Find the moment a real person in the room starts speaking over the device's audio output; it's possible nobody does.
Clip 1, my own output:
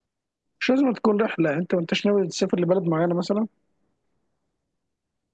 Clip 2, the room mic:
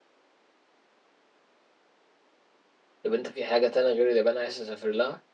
3.0 s

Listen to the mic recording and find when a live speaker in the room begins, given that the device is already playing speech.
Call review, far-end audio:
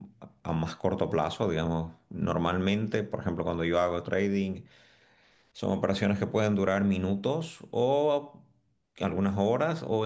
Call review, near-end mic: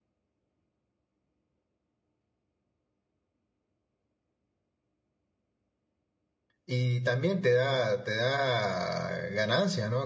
6.6 s

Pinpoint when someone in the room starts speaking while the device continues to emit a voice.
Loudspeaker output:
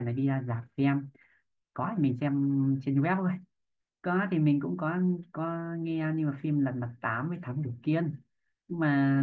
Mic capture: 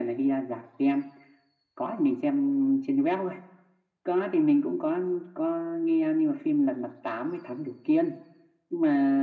none

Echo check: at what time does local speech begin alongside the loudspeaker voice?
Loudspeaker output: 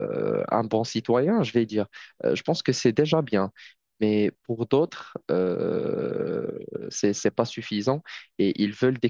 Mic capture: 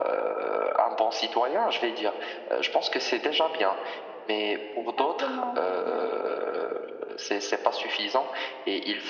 4.8 s

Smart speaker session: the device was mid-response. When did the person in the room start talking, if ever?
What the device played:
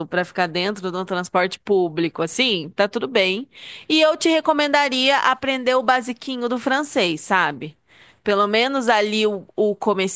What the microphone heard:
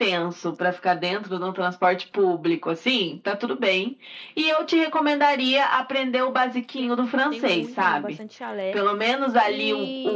6.8 s

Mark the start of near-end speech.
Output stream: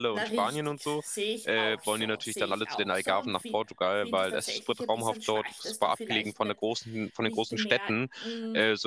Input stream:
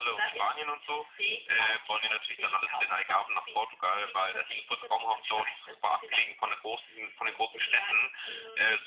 none

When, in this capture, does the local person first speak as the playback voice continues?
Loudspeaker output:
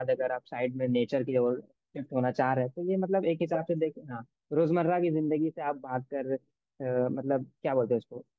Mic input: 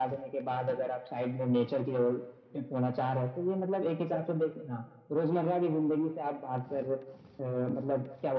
none

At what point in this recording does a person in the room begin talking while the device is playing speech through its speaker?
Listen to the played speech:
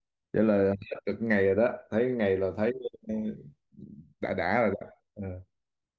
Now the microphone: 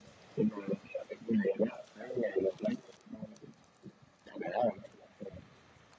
none

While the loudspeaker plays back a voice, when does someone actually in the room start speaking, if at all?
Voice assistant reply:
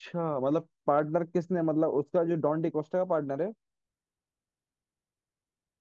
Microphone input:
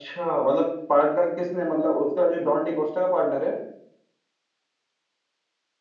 none

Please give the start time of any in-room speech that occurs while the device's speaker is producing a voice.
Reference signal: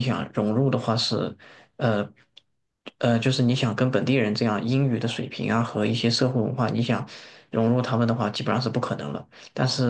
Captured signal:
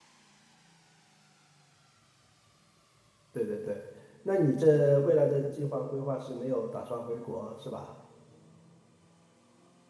3.3 s

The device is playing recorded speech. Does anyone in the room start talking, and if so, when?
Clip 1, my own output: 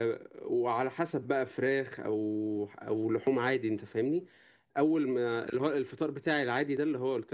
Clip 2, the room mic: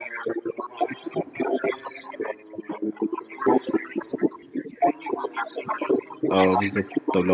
6.3 s

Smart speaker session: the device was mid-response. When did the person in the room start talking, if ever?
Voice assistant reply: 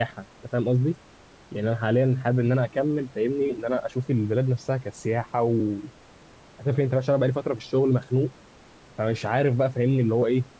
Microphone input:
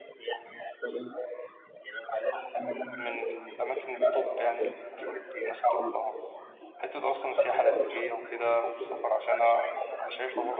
3.0 s

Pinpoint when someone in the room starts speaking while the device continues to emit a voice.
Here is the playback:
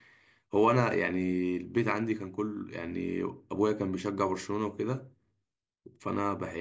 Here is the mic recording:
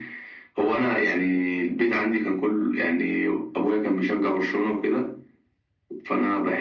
none

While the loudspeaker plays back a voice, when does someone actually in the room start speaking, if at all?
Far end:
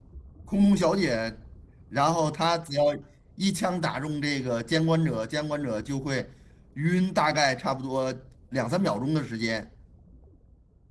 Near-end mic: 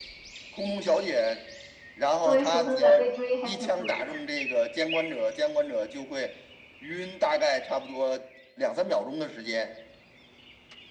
2.2 s

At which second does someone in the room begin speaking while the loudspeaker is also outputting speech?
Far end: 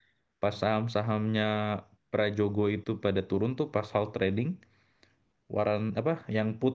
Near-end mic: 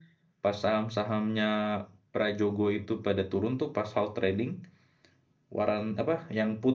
none

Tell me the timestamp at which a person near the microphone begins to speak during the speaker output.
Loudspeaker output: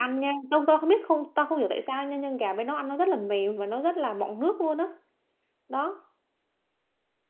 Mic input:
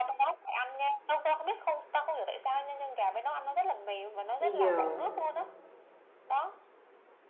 4.4 s

